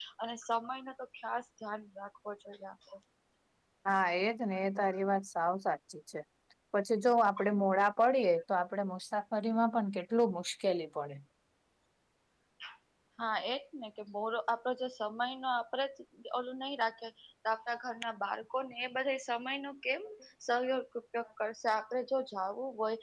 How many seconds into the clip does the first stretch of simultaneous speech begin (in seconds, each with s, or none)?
none